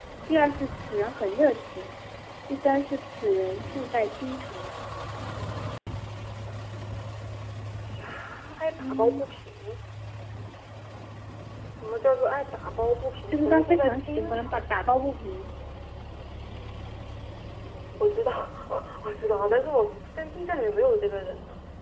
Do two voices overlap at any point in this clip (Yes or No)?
Yes